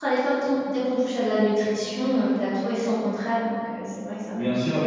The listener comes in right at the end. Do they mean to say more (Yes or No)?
Yes